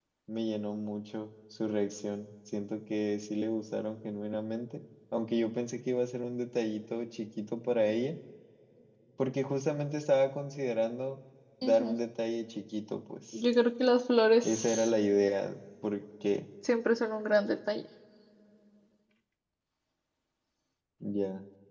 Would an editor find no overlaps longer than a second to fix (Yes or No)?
Yes